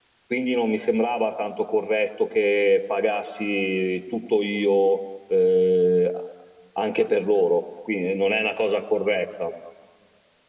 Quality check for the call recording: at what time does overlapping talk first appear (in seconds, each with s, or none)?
none